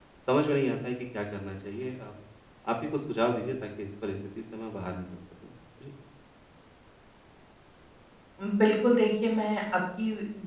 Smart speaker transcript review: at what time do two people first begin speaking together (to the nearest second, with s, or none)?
none